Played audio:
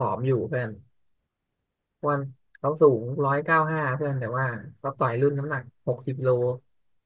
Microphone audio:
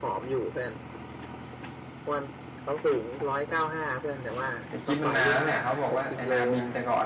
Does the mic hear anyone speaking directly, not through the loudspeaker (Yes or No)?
Yes